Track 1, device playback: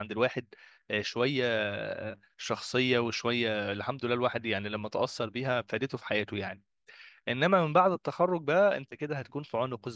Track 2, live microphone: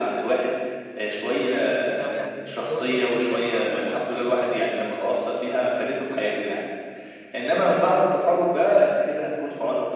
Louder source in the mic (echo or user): echo